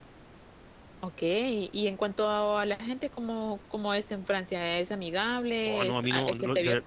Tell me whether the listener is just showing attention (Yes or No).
No